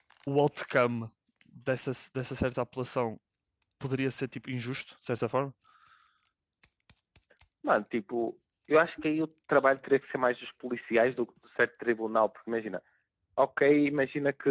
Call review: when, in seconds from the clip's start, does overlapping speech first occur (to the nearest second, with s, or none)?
none